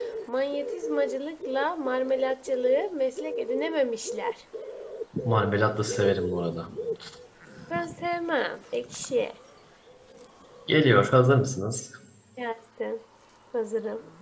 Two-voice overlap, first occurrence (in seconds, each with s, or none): none